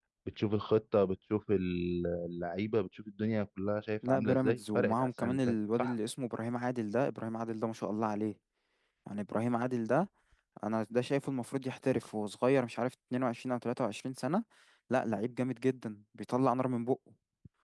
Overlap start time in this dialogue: 4.0 s

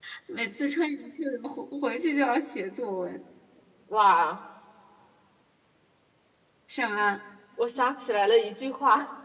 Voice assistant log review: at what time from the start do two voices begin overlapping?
none

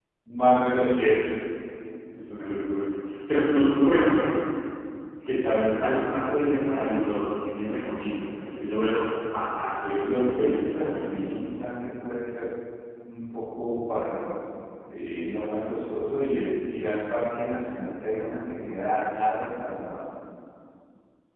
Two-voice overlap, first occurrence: 10.0 s

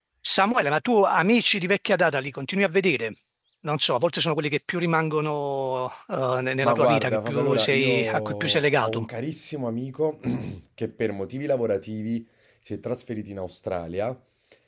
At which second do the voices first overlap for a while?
6.6 s

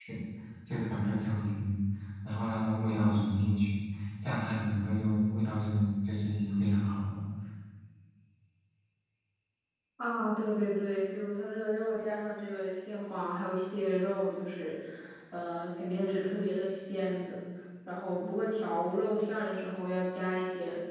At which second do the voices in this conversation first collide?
none

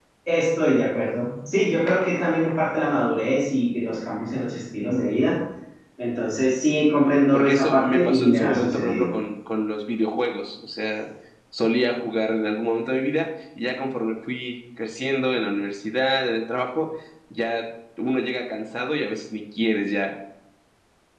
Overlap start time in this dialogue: 7.3 s

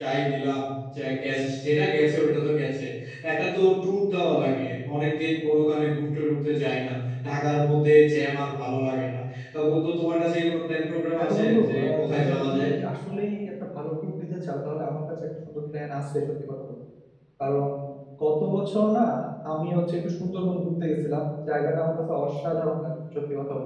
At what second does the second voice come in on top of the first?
11.1 s

